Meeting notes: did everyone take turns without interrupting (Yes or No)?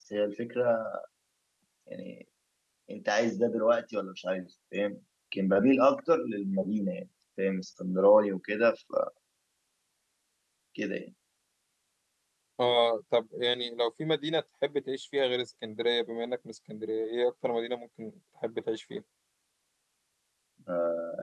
Yes